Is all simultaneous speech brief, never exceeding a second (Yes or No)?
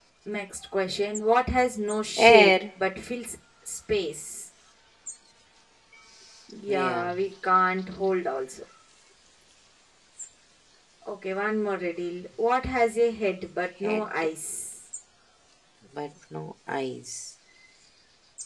Yes